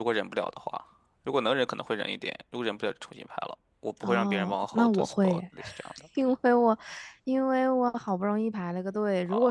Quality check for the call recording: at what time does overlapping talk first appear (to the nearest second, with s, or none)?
4 s